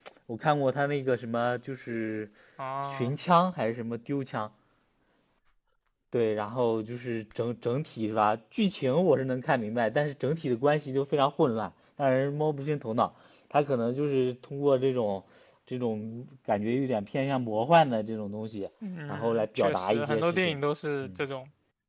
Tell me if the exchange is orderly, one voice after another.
No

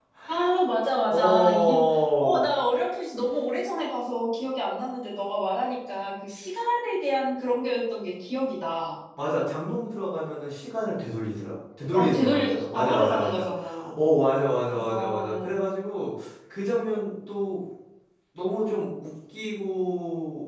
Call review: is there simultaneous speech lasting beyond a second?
Yes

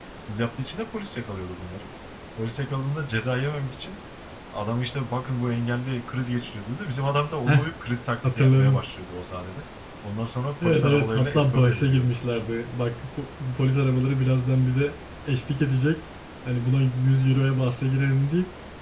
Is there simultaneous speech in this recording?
Yes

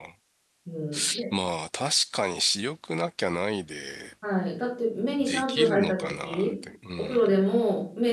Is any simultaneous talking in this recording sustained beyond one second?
Yes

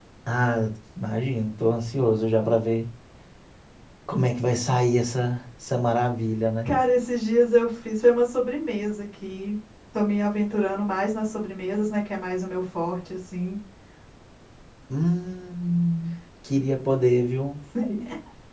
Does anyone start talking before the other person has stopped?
No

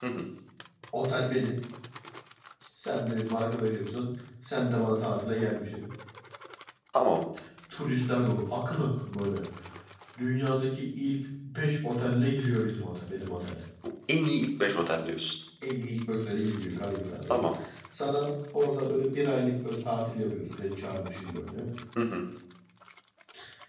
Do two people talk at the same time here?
No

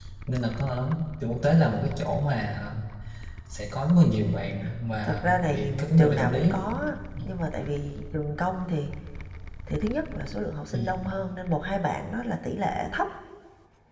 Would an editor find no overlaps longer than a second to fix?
No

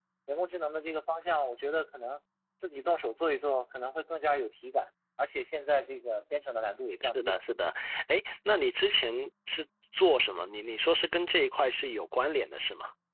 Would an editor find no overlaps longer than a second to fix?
Yes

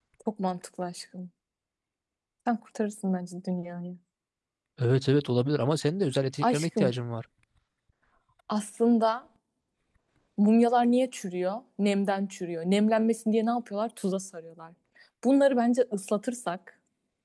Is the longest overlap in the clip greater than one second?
No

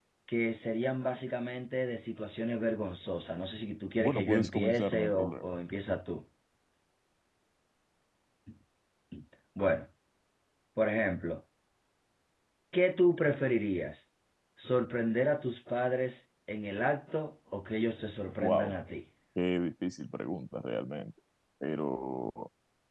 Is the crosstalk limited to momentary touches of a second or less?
No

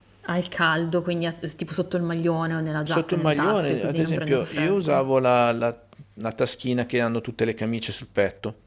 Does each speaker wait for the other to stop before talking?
No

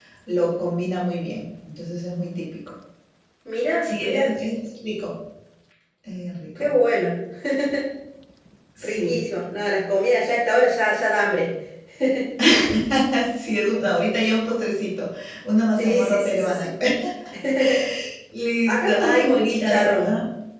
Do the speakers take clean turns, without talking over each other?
No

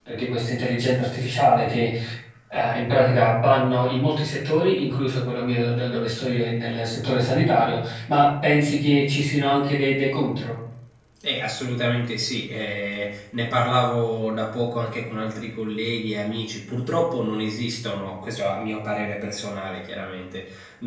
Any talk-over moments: No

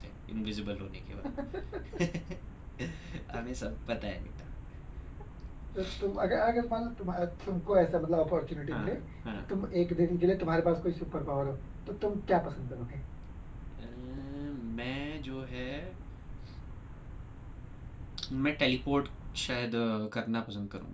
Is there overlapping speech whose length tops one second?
No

